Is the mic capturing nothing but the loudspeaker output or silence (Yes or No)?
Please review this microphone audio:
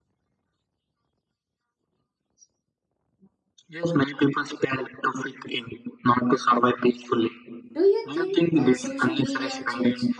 No